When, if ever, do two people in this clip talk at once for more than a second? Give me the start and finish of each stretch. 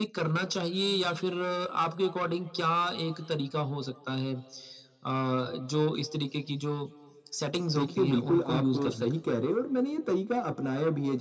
7.8-9.1

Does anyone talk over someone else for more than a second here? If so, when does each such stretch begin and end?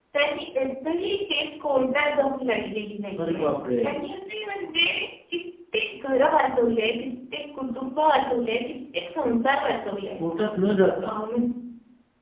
none

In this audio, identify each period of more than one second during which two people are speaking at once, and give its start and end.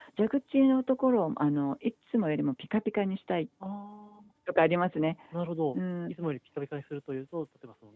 none

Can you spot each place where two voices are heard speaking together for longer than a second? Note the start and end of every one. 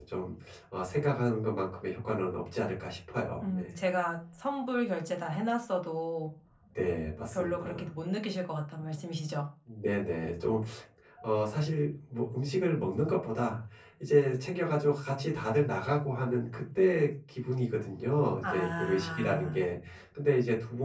18.4-19.6

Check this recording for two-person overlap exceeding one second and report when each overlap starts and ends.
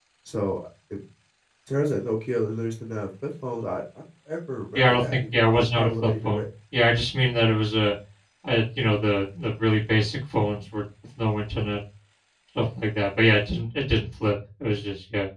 4.8-6.5

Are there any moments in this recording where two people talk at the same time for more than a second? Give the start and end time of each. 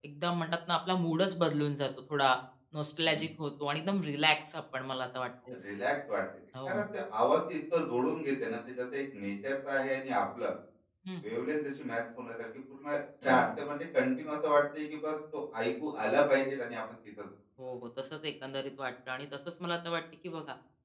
none

